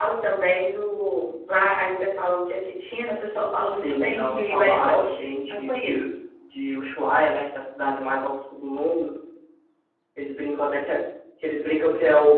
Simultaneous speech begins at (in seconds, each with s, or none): 3.8 s